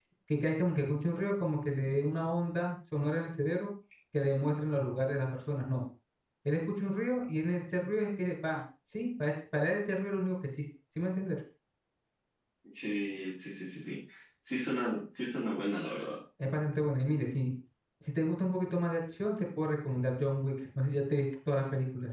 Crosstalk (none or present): none